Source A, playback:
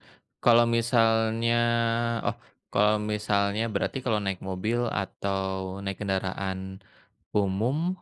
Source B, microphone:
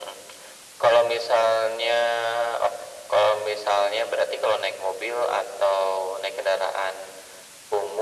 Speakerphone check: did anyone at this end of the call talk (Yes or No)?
No